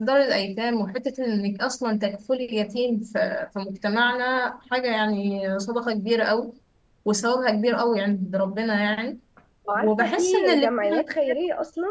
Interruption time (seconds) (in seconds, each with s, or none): 9.8 s